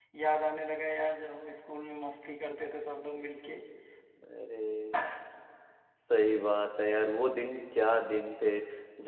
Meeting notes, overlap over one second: none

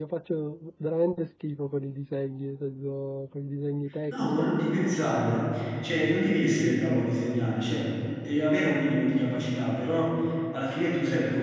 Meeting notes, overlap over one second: none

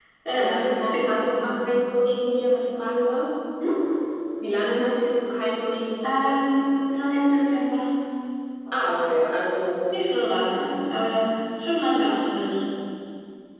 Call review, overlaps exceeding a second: present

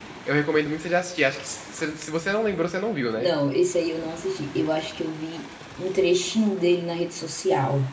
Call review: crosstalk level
none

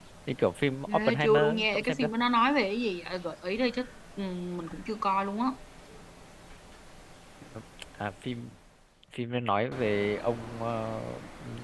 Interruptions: present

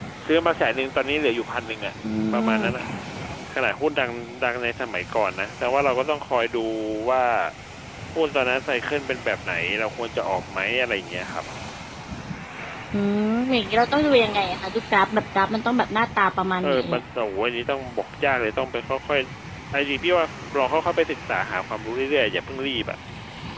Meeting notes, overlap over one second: none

